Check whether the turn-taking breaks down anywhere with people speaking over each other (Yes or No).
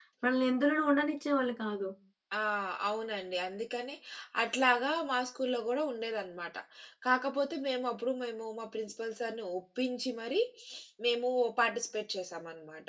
No